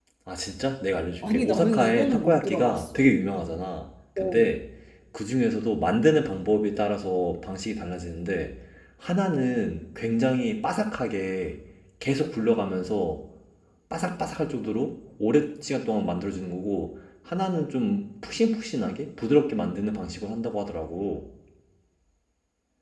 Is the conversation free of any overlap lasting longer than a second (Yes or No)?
No